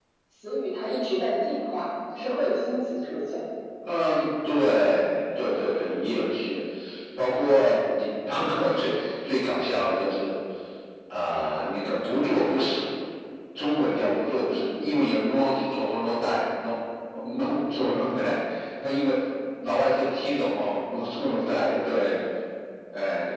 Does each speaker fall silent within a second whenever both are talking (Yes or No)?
Yes